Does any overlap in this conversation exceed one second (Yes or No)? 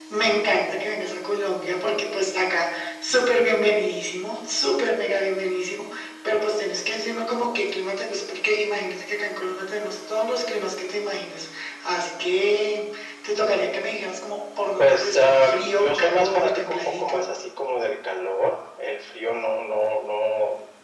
Yes